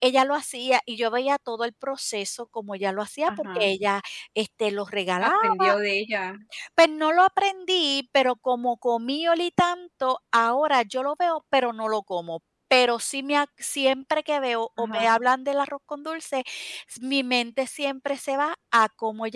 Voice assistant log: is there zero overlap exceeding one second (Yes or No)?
Yes